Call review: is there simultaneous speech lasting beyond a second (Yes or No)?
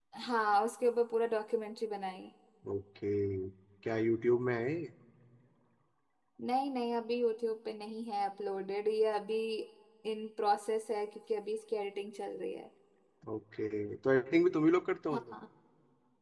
No